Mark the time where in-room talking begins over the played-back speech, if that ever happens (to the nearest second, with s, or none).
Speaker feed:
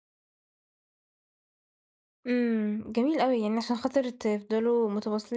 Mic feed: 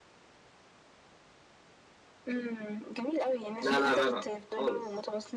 4 s